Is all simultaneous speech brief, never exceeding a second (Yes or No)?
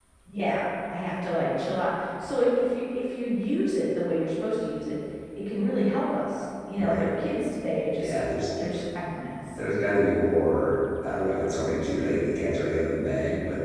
Yes